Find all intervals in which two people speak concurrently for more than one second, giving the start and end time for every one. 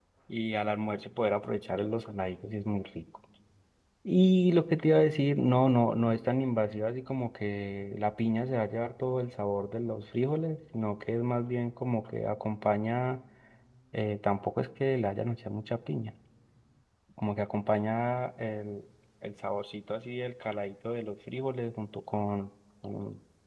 none

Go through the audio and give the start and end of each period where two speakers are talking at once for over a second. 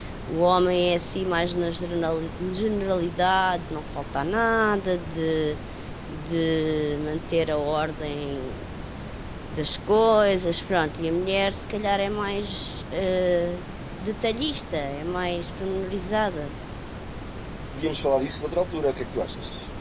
none

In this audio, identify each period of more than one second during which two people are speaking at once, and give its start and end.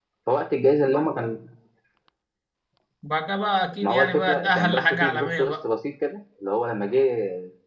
3.8-5.6

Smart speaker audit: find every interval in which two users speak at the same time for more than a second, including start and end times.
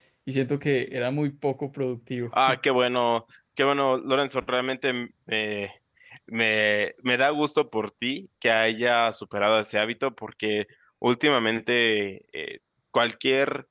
none

